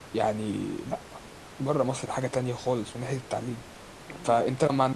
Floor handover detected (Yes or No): No